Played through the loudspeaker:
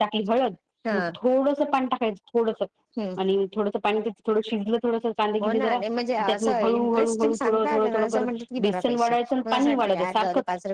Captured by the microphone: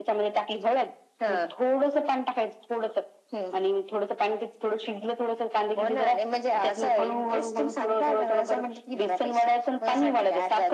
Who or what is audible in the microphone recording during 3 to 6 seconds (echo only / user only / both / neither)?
echo only